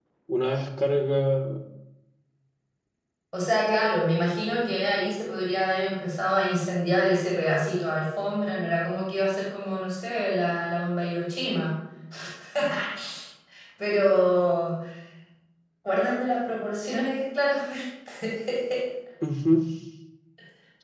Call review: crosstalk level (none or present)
none